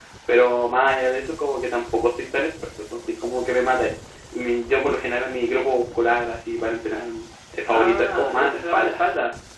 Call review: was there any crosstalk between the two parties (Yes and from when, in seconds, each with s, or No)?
Yes, from 7.7 s